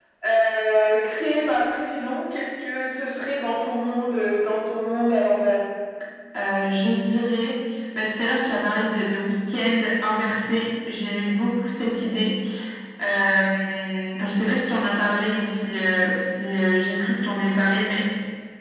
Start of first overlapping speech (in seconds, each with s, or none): none